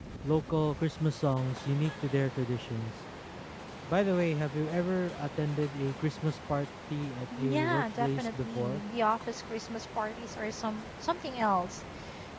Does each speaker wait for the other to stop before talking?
No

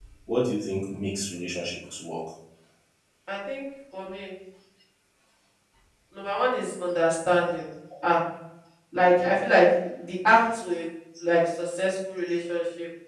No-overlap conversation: Yes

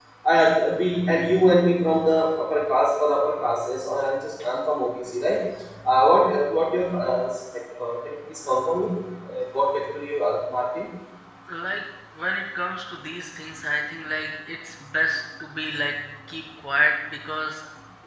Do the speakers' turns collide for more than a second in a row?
No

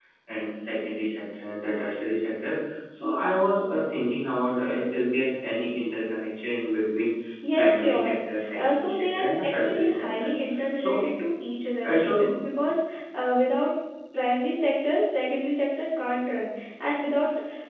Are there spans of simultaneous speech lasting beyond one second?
Yes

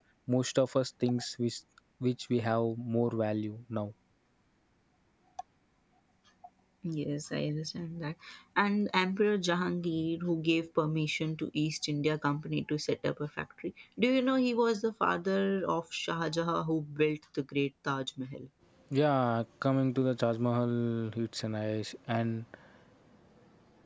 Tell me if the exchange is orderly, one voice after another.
Yes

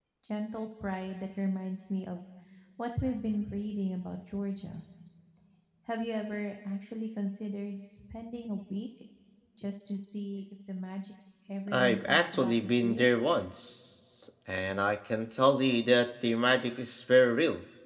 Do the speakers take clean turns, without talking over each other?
No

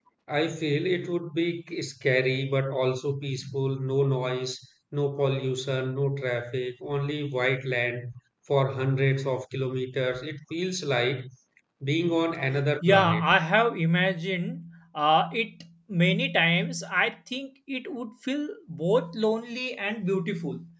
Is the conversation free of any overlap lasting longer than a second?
Yes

